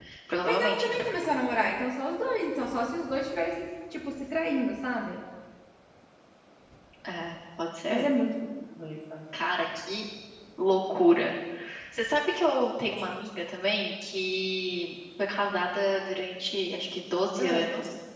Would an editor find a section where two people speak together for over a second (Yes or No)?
No